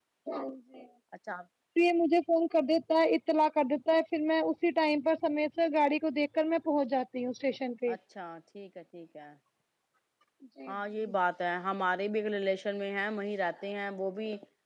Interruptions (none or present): none